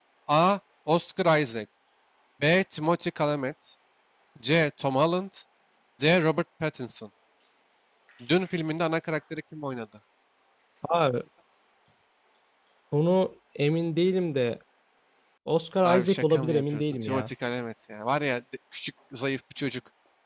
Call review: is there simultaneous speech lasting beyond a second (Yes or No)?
Yes